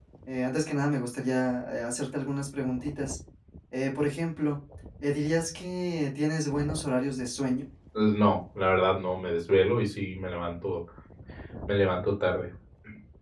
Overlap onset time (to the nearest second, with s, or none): none